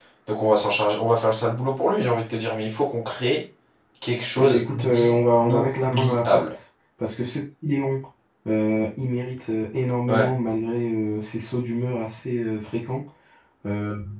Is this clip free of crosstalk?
No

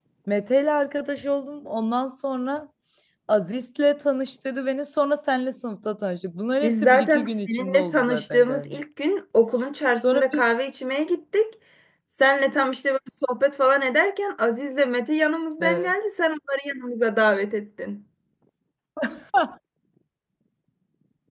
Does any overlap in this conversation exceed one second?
Yes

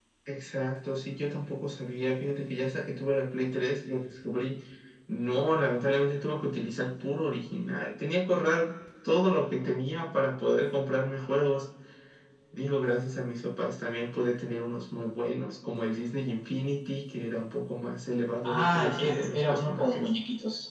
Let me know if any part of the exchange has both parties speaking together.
Yes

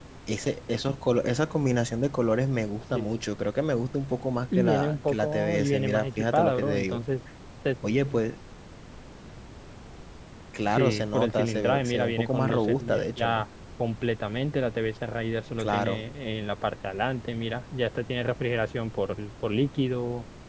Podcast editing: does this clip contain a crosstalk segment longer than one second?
Yes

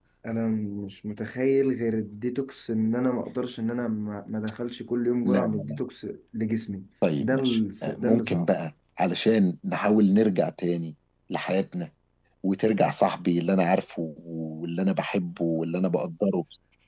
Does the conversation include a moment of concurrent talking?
Yes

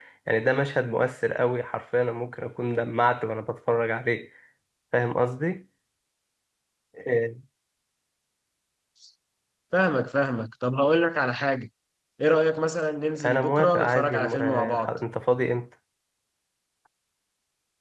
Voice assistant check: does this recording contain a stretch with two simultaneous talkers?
Yes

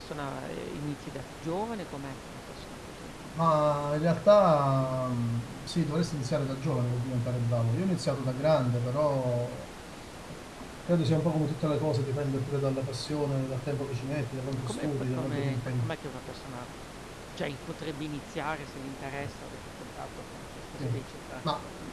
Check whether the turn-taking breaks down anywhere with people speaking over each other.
Yes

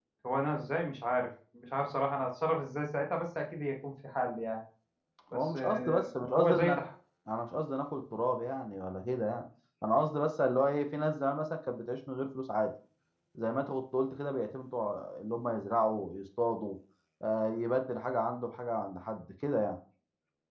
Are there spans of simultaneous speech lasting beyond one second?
Yes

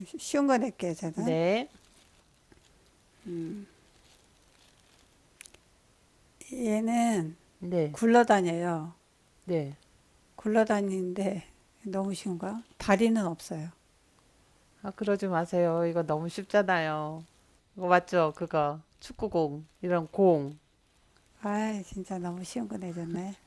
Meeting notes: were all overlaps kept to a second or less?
Yes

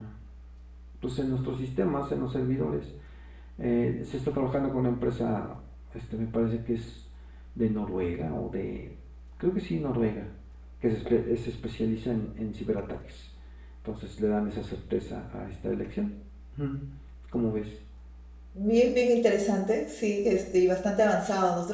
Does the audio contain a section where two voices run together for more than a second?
No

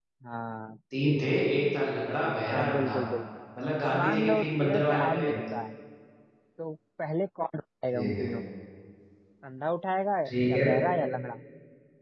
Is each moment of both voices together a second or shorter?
No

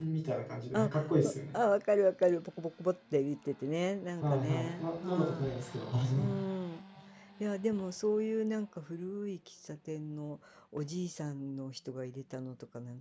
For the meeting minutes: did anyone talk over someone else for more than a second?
Yes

